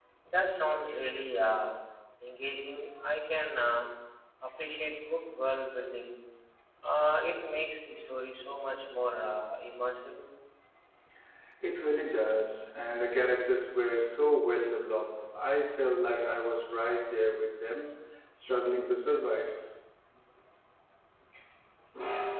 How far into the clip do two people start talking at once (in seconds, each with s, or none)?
none